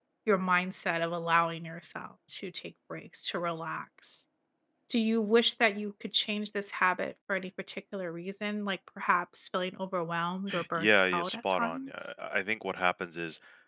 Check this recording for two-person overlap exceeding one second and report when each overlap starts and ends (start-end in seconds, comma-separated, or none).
10.7-12.1